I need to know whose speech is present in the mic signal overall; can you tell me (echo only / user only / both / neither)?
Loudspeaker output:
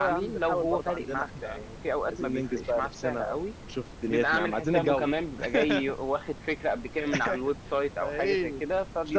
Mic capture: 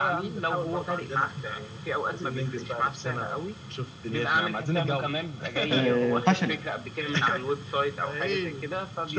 both